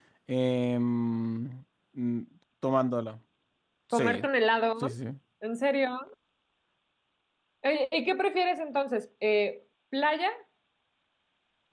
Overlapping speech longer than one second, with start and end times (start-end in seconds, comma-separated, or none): none